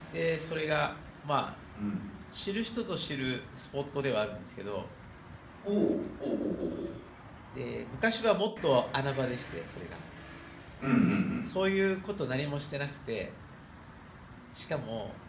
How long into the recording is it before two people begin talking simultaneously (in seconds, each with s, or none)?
none